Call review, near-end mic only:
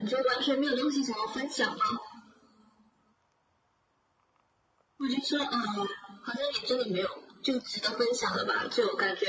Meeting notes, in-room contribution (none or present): none